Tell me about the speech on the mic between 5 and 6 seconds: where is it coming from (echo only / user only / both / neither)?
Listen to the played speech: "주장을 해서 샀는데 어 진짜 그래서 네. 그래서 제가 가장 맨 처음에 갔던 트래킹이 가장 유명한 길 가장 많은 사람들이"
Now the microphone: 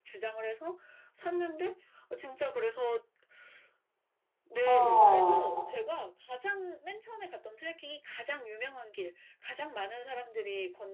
both